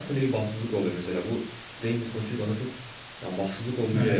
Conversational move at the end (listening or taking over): listening